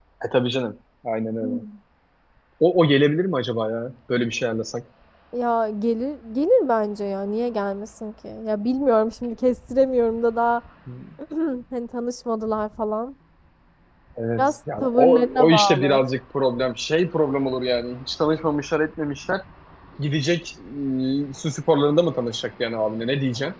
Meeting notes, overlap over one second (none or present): present